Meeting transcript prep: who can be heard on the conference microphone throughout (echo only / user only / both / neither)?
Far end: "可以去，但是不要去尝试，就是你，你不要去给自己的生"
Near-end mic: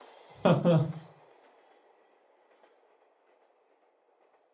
user only